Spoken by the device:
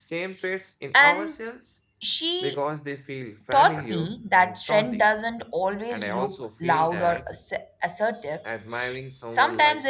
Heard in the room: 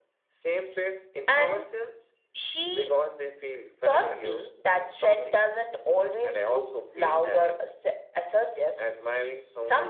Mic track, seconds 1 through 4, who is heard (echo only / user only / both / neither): echo only